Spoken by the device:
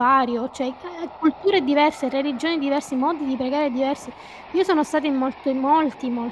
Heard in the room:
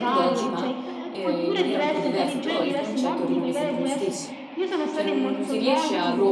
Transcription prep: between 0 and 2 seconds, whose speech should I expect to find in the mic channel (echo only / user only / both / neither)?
both